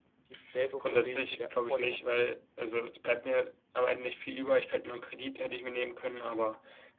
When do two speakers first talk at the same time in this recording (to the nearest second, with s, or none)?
1 s